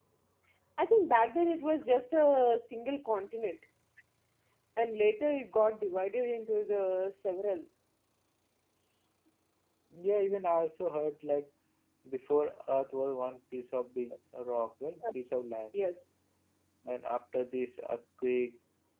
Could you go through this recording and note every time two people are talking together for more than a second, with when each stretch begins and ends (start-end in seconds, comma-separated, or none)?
none